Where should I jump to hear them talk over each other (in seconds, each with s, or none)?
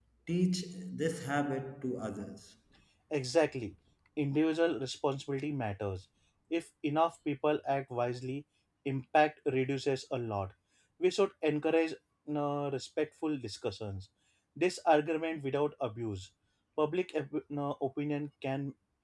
none